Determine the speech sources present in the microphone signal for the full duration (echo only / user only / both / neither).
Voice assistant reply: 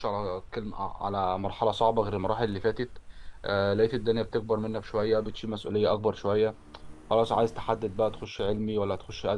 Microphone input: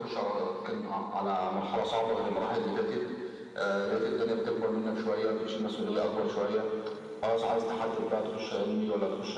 echo only